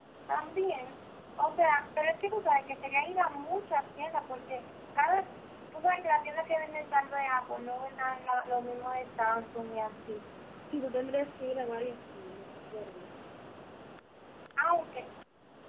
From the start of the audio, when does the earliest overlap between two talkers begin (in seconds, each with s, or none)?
none